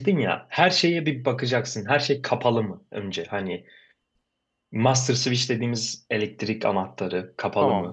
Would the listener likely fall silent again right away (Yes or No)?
Yes